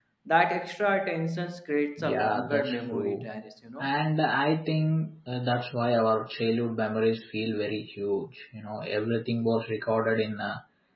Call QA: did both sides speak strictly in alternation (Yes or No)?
No